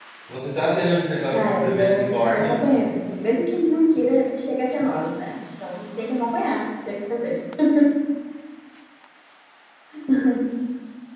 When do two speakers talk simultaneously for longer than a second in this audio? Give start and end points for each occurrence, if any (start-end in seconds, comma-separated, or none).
1.3-2.5